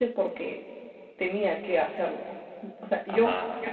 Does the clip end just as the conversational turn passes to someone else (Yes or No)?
No